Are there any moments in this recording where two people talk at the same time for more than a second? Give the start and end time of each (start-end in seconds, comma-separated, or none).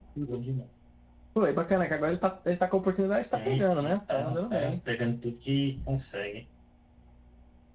3.3-4.8